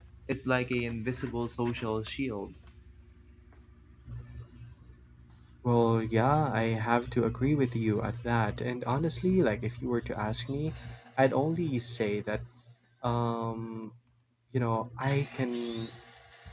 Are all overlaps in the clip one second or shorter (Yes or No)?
Yes